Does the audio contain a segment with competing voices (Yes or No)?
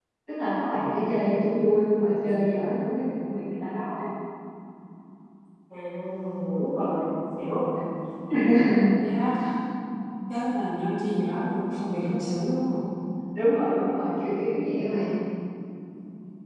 No